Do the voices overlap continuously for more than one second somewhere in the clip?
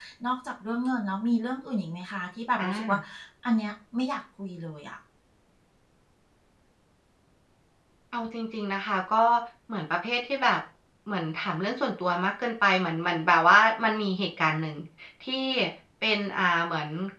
No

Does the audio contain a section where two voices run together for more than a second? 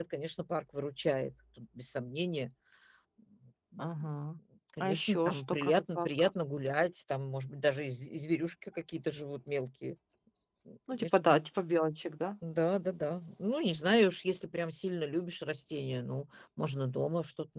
Yes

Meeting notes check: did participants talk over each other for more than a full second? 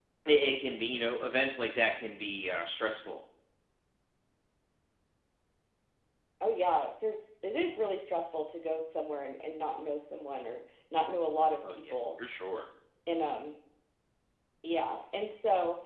No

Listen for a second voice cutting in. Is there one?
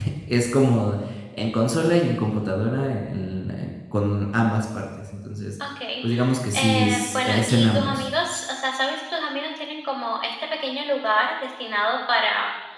Yes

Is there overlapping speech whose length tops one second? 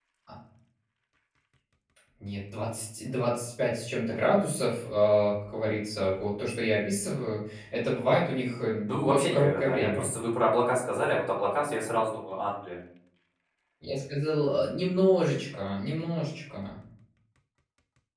Yes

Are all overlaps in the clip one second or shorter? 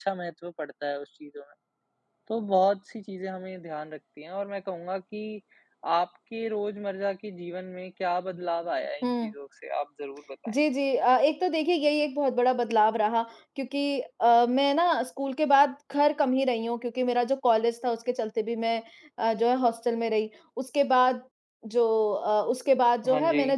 Yes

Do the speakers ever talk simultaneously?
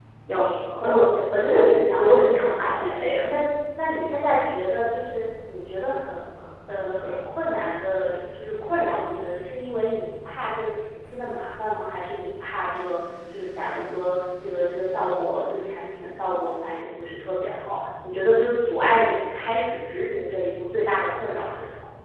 Yes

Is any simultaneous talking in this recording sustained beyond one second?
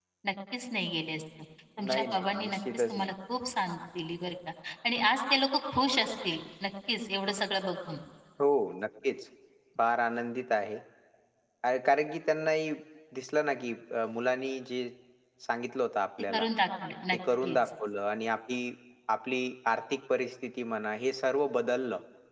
Yes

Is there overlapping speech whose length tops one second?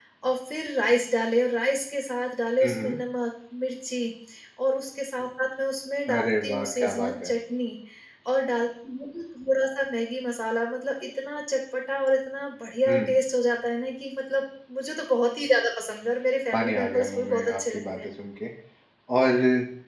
Yes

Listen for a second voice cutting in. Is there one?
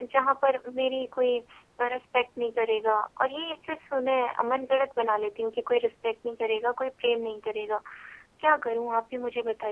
No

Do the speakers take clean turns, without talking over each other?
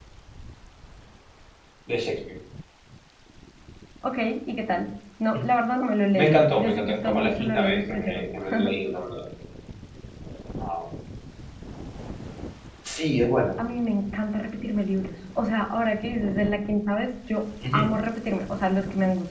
No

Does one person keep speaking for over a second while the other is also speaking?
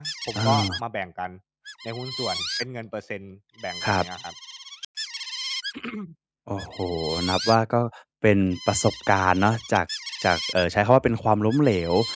No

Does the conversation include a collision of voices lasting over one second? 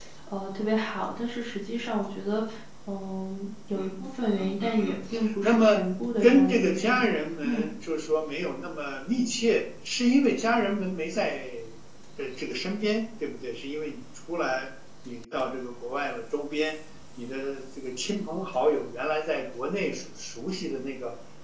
Yes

